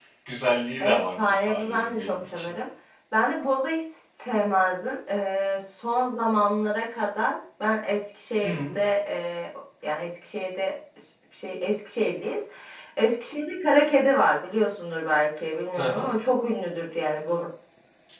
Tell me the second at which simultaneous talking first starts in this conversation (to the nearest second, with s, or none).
1 s